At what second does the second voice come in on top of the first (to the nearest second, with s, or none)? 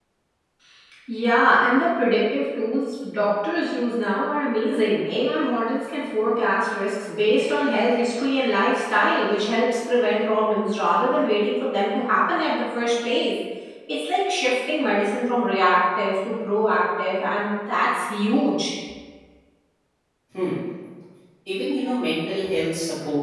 none